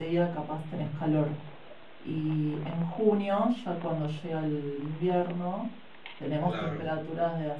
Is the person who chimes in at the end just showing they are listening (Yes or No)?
Yes